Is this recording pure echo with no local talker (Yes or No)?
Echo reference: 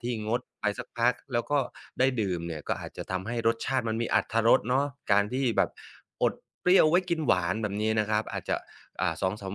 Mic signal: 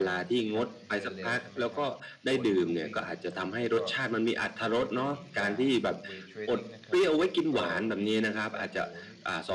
No